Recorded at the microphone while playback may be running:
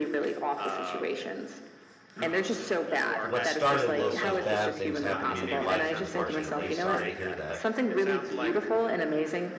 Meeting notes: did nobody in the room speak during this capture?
No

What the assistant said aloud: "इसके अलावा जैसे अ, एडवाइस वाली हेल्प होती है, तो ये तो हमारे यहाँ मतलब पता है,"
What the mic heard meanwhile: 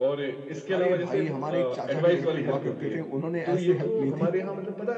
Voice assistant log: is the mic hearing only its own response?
No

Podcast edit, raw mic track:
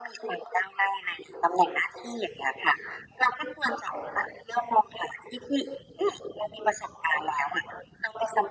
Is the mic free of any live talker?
Yes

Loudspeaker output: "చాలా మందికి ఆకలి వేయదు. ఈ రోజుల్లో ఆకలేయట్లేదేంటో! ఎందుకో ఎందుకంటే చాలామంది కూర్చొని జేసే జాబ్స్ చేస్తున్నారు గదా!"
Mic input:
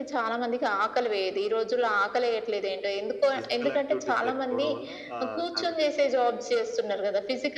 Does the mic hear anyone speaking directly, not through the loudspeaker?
Yes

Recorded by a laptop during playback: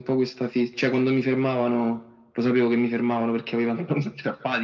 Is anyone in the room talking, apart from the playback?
No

